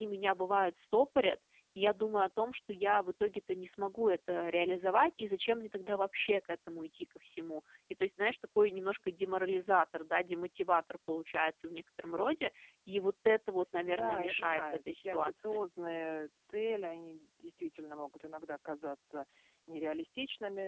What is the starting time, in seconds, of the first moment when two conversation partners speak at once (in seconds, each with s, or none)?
13.8 s